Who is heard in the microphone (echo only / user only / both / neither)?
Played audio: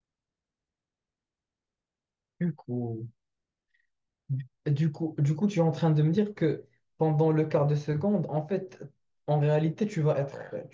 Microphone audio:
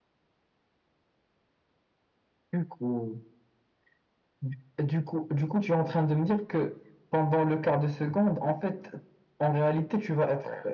echo only